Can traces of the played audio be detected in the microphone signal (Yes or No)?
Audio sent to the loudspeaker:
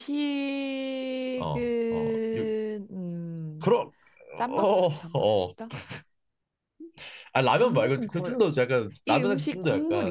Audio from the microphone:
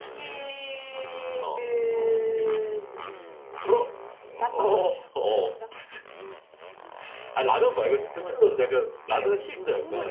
Yes